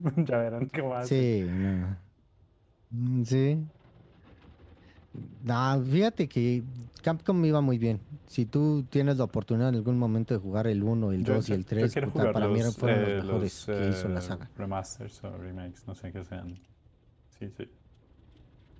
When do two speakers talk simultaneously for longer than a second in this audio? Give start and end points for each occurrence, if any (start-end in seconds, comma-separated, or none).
11.2-14.4